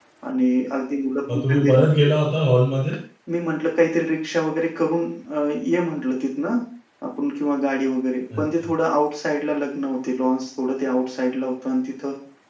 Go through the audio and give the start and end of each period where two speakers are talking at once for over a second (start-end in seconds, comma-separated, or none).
none